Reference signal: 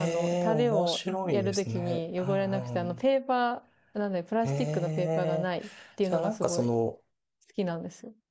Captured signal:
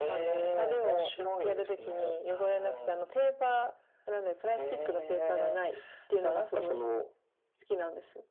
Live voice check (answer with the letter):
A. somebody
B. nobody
B